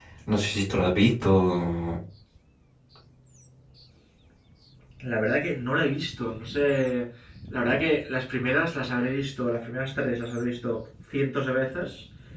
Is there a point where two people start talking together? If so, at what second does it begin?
none

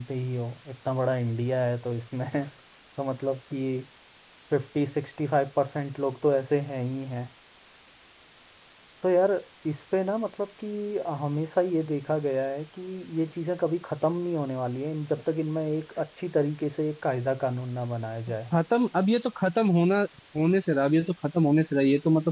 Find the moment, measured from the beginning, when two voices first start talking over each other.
none

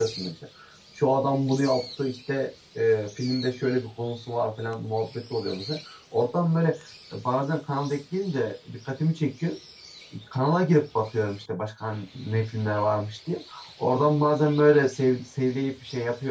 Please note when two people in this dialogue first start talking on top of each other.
none

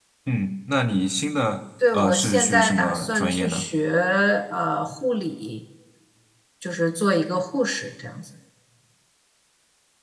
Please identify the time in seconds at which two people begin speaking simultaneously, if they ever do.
1.8 s

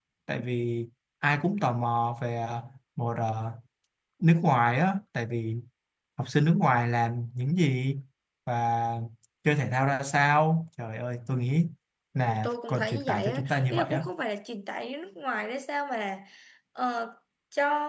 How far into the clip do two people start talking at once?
12.2 s

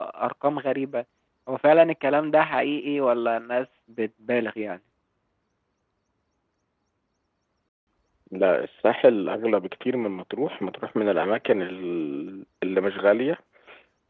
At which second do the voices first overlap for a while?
none

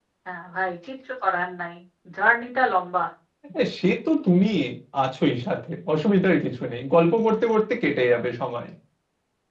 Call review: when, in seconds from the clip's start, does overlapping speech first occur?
none

